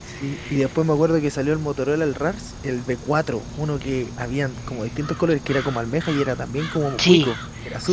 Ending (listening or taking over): taking over